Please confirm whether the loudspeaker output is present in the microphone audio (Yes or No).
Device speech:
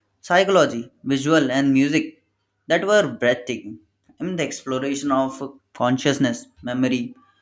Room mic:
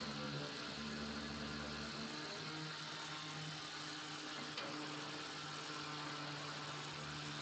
No